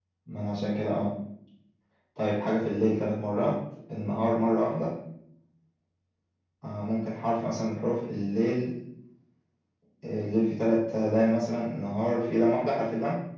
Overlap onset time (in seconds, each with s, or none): none